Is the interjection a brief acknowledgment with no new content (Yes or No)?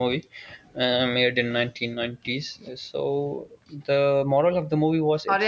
No